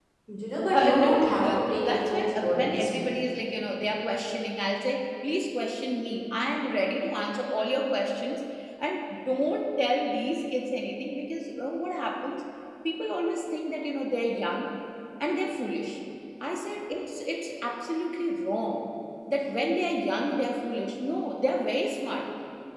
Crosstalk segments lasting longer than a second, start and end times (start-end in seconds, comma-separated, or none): 0.7-3.1